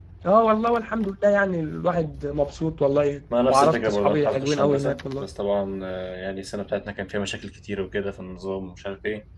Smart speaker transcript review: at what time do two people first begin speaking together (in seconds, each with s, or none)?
3.3 s